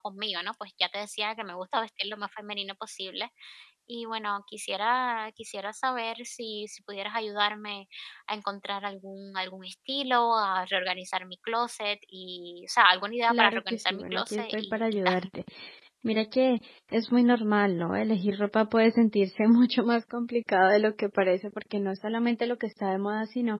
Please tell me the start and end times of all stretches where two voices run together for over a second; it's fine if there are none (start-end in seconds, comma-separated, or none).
13.3-15.3